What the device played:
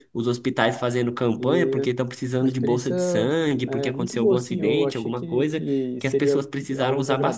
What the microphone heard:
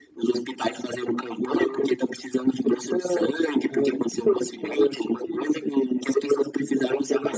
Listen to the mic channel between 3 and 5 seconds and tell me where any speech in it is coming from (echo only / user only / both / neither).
echo only